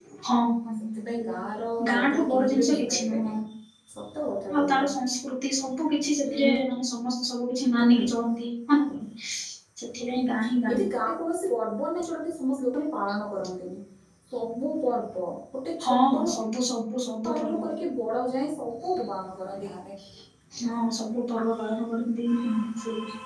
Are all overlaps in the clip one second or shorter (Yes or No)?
No